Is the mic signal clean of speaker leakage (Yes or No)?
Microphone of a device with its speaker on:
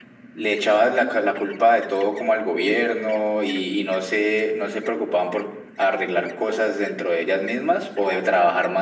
No